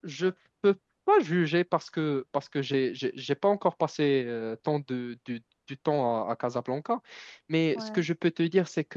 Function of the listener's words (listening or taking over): listening